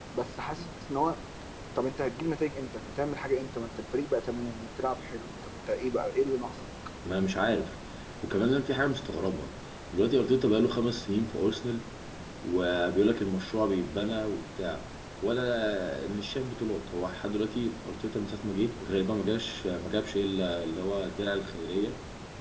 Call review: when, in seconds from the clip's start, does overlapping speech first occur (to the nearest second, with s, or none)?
none